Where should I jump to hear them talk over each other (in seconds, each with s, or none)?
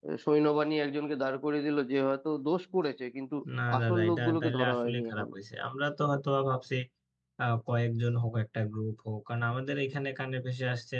3.8 s